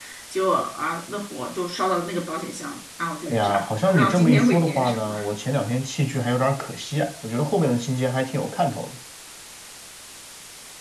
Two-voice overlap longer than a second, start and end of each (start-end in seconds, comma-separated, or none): 3.3-5.2